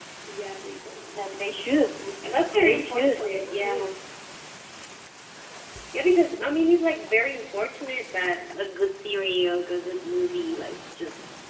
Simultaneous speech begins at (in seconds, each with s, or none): 2.2 s